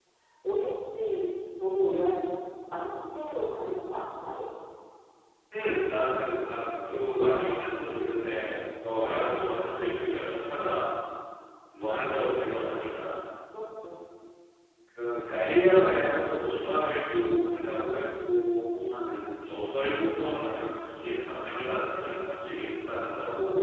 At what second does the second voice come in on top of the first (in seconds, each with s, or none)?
none